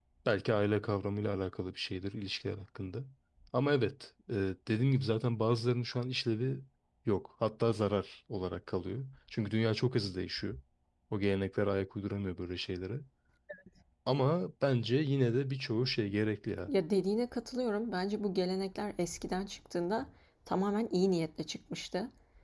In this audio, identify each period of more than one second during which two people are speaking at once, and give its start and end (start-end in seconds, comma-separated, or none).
none